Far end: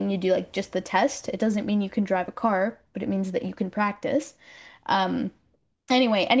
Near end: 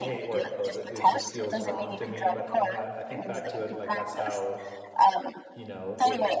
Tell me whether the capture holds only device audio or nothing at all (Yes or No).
No